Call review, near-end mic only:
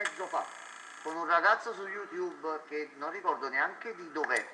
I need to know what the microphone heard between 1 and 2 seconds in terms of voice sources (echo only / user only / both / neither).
echo only